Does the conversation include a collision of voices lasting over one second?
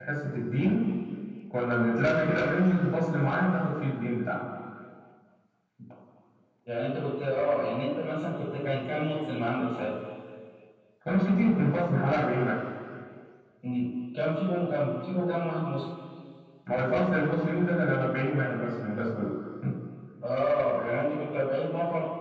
No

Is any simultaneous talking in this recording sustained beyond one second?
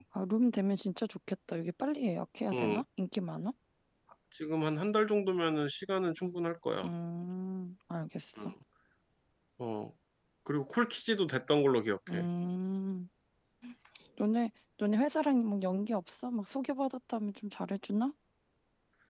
No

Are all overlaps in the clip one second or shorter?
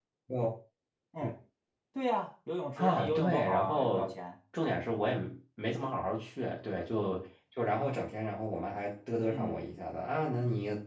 No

